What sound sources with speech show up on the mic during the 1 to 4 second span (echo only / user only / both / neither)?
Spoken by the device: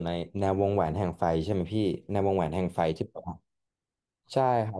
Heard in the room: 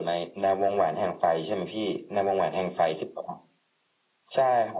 echo only